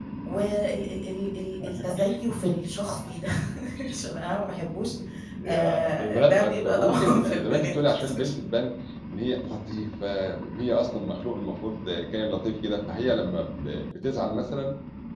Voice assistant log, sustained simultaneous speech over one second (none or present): present